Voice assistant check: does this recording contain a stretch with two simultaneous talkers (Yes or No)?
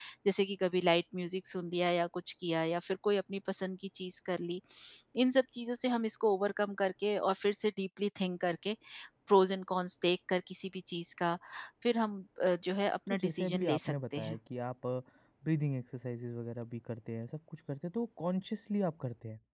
Yes